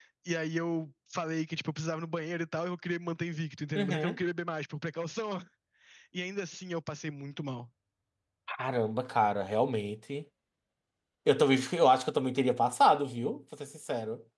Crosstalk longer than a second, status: none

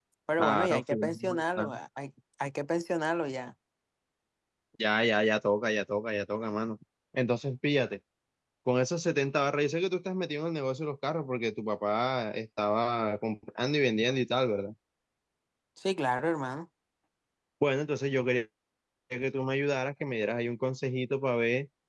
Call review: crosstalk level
present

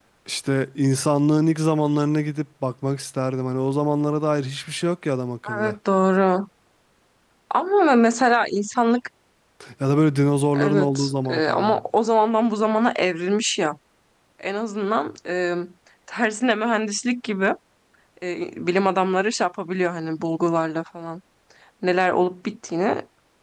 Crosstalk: present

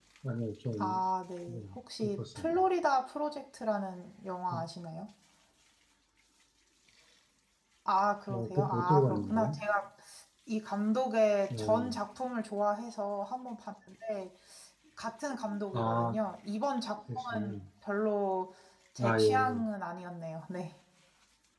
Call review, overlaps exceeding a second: present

